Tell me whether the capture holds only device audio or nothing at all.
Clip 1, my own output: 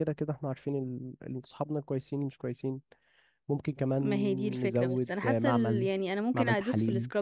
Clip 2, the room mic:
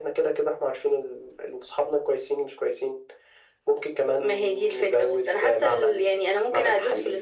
Yes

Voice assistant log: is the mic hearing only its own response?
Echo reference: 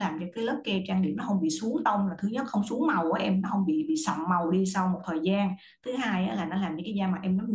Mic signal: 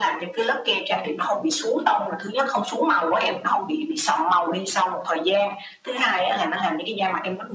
Yes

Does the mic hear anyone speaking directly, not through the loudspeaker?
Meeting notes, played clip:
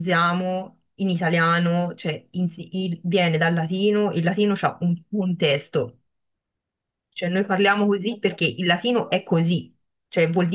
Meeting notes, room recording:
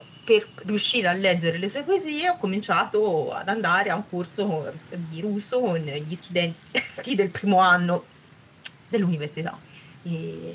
Yes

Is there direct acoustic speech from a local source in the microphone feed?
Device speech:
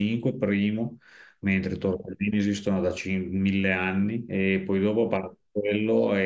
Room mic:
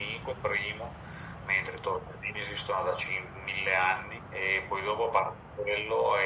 No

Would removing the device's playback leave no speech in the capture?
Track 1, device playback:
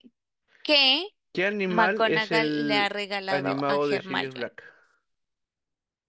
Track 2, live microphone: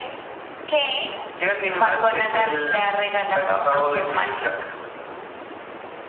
Yes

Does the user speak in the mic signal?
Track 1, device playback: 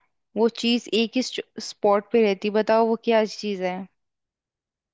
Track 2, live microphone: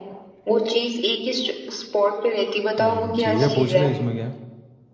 Yes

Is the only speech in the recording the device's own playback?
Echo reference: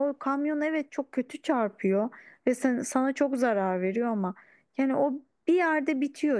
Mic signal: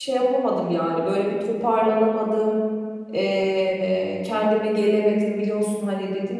No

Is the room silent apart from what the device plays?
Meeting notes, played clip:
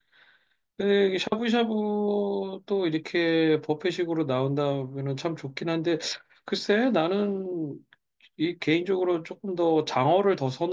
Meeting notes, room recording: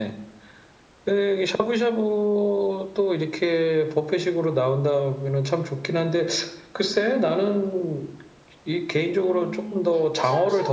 No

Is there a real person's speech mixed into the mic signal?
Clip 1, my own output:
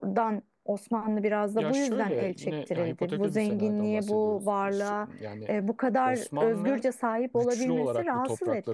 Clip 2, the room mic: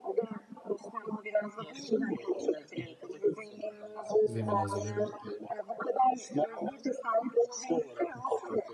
Yes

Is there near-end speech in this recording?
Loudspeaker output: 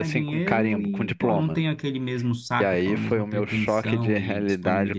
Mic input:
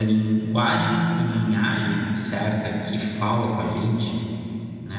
Yes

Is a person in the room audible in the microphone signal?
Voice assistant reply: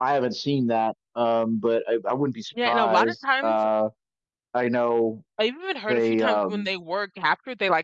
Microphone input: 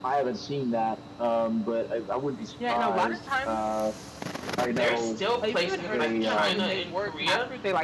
Yes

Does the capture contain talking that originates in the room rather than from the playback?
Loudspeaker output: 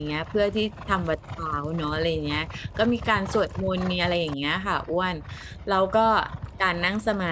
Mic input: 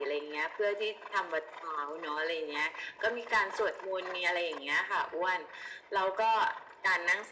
No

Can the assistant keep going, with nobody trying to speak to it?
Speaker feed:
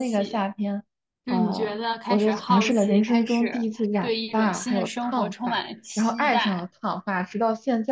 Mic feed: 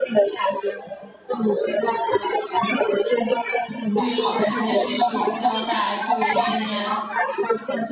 No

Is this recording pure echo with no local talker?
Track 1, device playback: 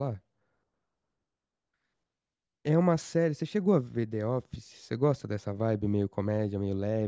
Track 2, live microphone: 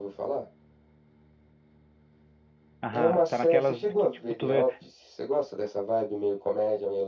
No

